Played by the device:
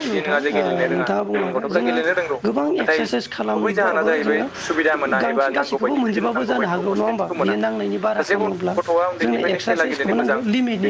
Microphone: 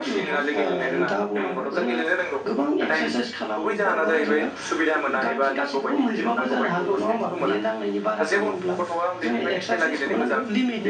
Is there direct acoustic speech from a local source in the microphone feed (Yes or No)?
No